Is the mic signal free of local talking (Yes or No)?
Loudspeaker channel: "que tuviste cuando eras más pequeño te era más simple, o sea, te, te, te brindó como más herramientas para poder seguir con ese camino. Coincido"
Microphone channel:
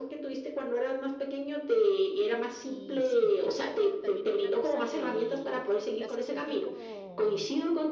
No